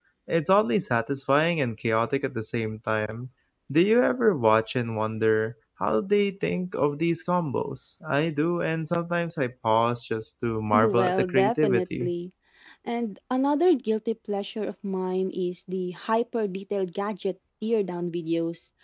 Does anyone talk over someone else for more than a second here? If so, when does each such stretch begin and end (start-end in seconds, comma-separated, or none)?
10.7-12.1